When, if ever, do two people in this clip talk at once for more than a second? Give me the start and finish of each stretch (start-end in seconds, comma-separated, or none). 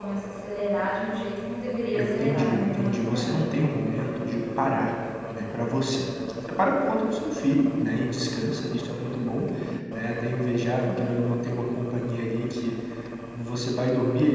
1.9-3.7